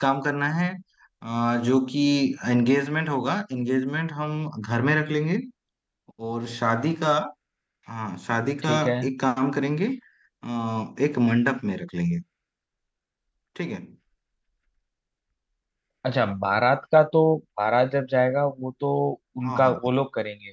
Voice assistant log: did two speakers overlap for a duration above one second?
No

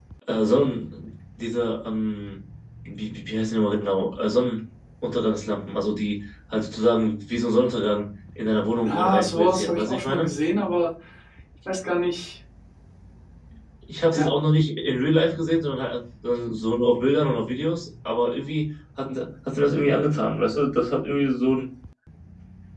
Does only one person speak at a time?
No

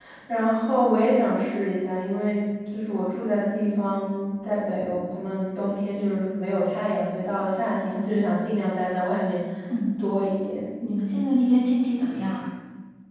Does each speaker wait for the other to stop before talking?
Yes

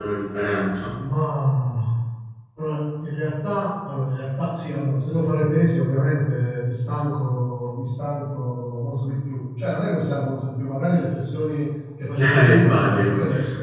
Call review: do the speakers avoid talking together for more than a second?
No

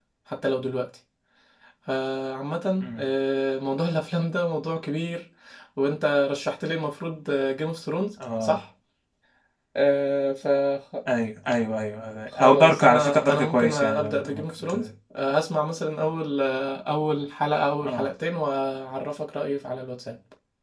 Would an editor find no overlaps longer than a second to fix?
No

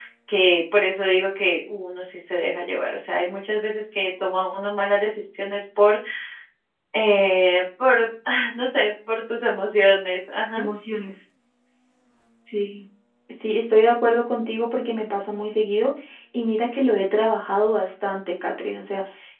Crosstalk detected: No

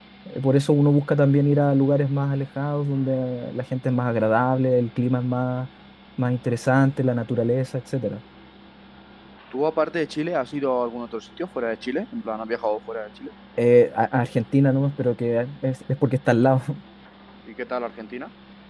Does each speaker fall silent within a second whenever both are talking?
Yes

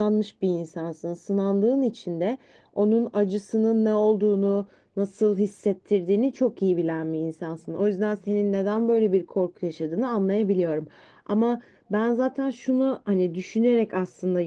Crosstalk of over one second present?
No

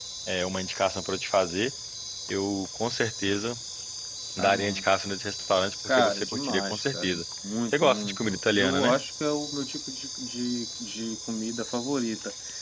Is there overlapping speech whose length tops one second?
Yes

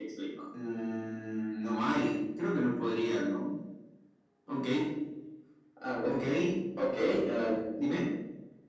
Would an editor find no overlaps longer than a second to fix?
Yes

